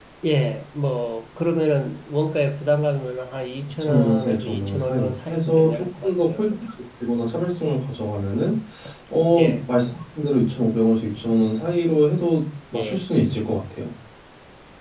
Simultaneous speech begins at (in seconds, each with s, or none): 3.8 s